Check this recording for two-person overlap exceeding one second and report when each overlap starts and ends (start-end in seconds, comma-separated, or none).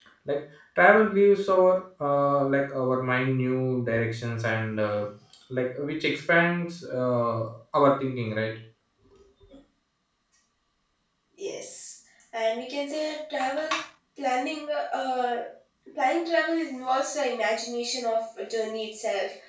none